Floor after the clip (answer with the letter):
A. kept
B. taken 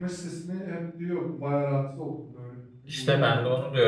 B